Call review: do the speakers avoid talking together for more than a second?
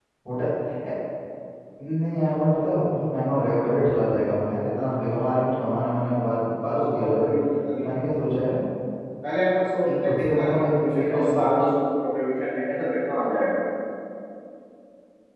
No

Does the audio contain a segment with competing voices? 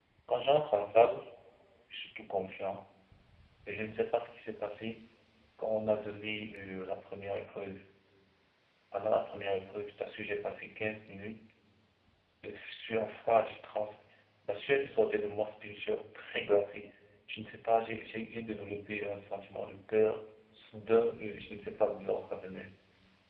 No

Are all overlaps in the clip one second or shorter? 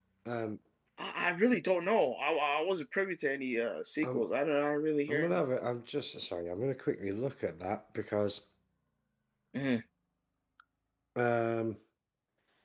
Yes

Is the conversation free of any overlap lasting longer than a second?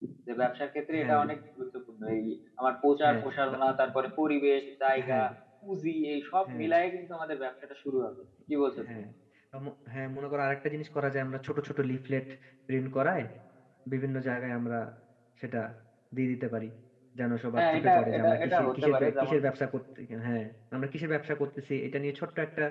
No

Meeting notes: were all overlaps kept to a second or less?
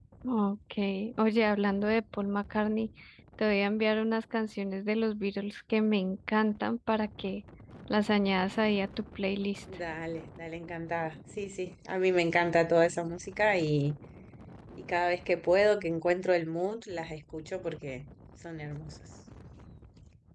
Yes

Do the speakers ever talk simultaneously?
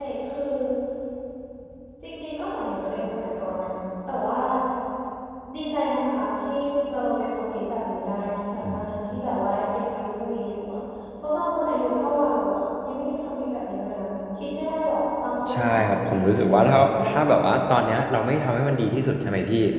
Yes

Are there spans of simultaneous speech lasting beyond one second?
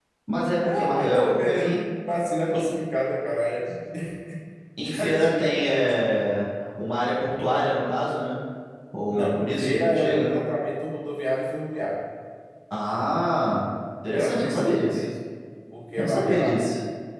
Yes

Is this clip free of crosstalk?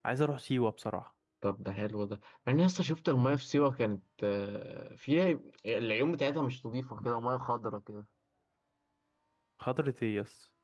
Yes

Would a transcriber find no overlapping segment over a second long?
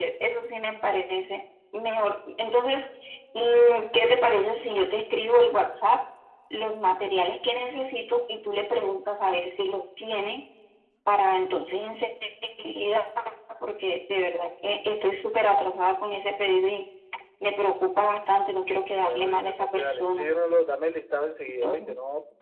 No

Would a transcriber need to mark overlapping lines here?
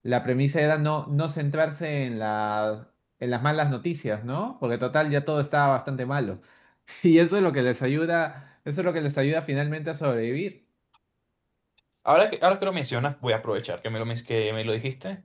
No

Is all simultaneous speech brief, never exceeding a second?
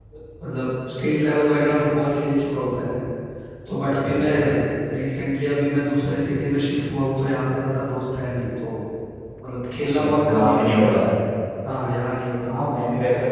No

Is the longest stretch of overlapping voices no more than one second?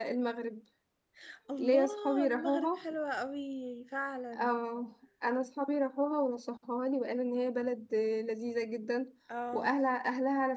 No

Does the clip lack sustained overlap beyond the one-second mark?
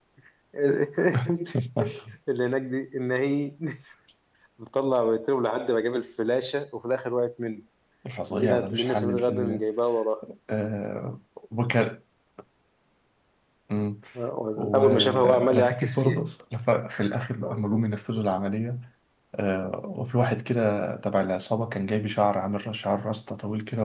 No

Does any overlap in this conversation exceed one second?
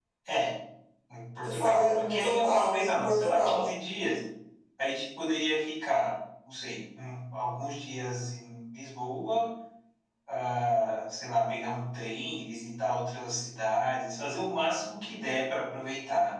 Yes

